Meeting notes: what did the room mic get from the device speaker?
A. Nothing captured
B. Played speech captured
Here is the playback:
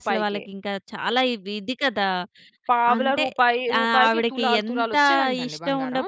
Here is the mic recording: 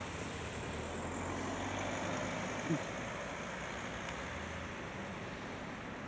A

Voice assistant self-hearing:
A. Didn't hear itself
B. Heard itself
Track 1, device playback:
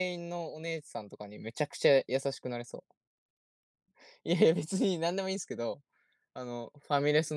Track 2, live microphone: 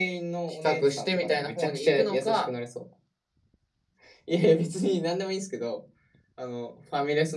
B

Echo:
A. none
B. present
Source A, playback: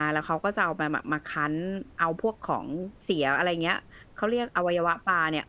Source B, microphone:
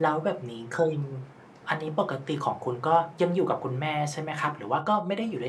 A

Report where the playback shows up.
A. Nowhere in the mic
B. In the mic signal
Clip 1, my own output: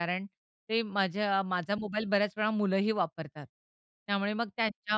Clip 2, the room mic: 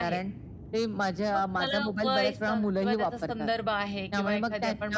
B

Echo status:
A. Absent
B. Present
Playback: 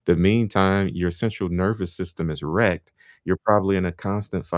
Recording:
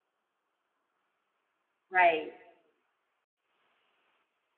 A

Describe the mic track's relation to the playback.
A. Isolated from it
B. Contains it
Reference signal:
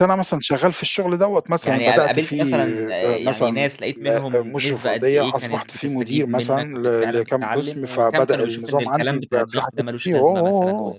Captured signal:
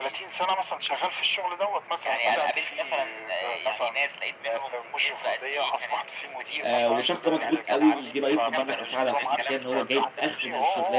B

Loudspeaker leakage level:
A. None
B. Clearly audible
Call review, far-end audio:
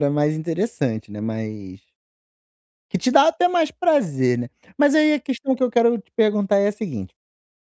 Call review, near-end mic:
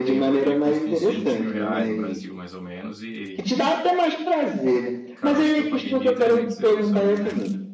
B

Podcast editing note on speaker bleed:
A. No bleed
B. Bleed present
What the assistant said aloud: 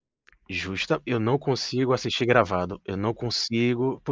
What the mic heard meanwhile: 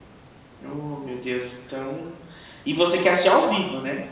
A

